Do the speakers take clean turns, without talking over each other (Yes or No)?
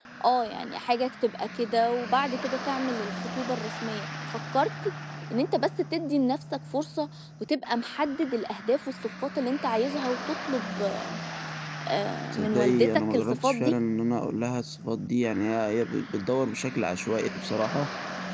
No